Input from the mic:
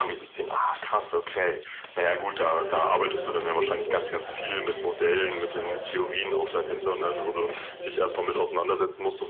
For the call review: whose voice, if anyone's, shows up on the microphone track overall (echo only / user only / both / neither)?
both